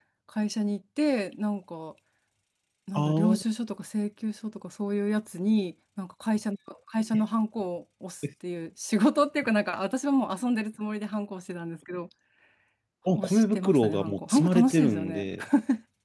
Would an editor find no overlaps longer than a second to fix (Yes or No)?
No